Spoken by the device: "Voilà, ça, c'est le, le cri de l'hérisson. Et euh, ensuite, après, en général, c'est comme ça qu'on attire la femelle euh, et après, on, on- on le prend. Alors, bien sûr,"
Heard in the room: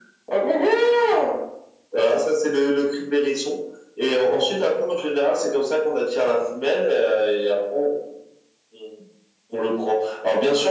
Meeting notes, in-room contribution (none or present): none